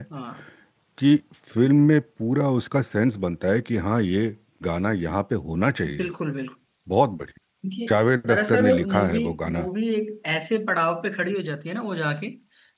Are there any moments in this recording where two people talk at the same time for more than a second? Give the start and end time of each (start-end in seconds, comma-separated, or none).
8.3-9.7